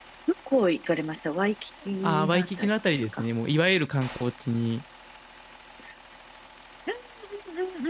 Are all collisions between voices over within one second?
No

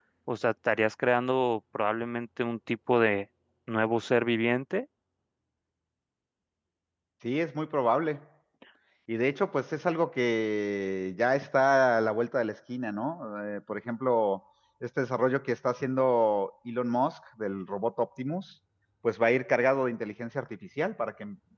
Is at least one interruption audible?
No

